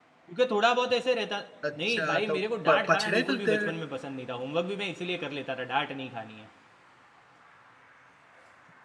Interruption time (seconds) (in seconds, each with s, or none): 1.9 s